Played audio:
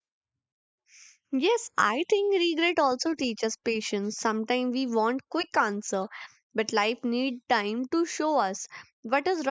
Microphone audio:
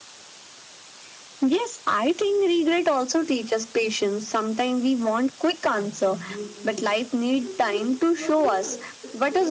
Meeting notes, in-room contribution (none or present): present